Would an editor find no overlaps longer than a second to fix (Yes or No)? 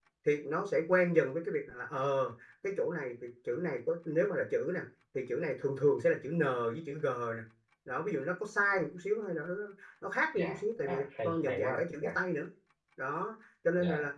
No